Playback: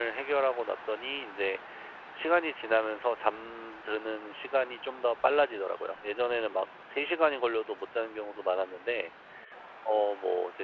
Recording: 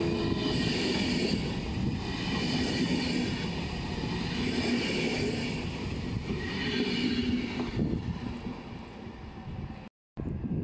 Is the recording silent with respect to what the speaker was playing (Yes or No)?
Yes